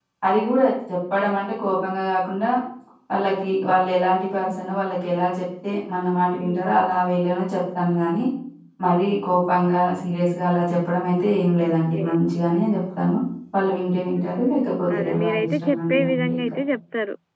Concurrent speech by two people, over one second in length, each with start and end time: 14.2-16.5

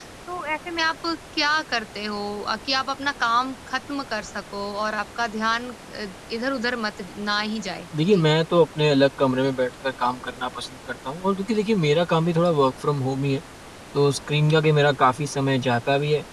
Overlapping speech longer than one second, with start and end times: none

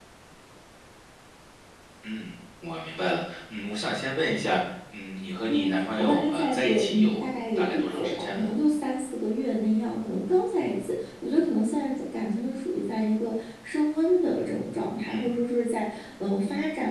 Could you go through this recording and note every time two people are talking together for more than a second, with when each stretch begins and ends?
5.5-8.5

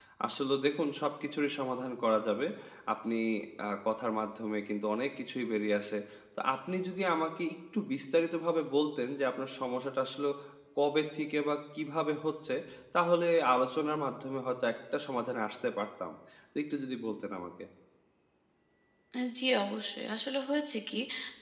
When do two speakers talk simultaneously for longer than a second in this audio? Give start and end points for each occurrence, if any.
none

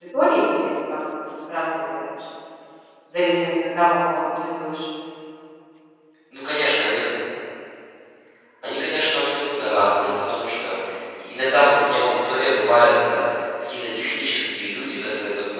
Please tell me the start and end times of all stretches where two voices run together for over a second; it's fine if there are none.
none

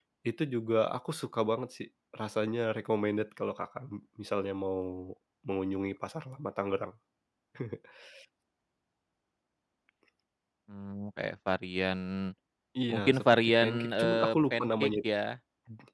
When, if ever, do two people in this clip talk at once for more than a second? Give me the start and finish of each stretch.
12.9-14.9

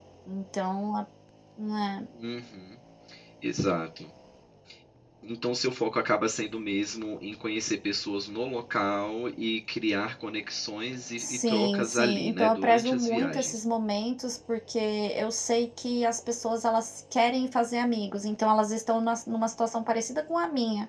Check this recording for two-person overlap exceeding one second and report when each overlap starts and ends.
11.2-13.6

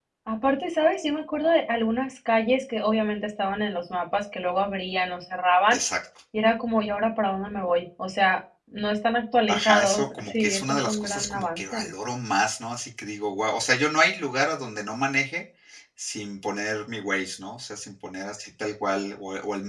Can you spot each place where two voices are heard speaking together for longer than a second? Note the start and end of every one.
9.5-11.9

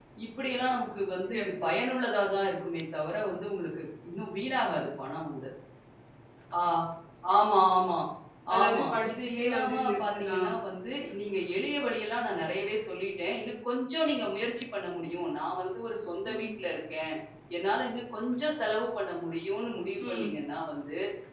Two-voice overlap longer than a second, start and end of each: 8.6-10.5

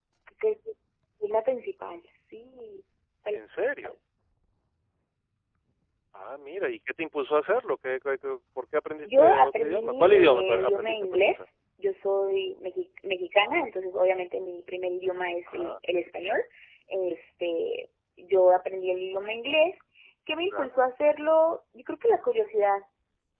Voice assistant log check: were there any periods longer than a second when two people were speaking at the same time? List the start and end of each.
9.0-11.4

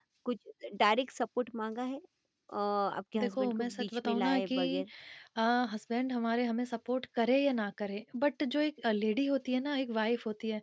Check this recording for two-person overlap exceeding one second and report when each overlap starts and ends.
3.2-4.8

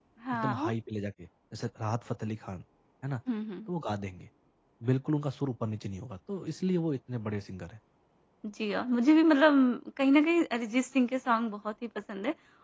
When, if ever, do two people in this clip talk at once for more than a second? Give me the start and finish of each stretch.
none

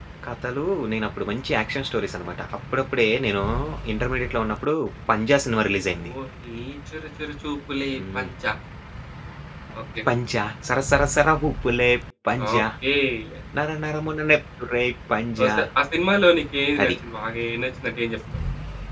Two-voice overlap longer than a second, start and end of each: none

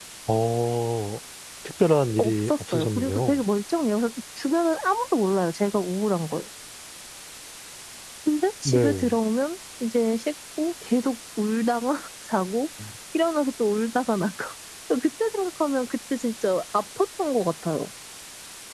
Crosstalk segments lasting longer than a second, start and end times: 2.2-3.4

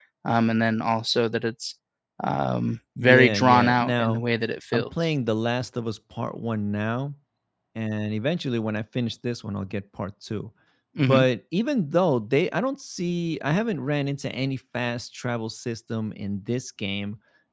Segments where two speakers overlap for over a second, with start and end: 3.0-4.2

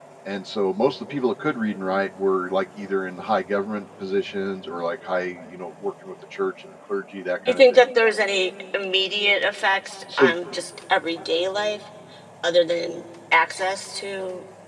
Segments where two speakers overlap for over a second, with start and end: none

